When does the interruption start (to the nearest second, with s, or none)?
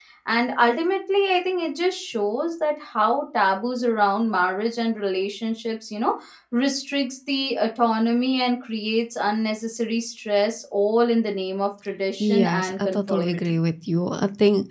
12 s